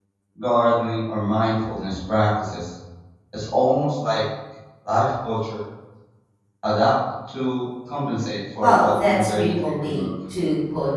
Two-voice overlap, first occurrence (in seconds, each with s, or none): 8.6 s